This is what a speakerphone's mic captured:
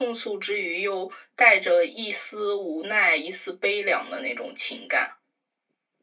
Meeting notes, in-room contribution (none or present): none